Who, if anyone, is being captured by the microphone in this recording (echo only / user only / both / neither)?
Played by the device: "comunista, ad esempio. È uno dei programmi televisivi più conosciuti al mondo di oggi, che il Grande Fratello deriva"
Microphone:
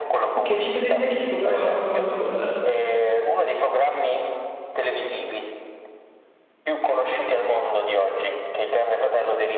both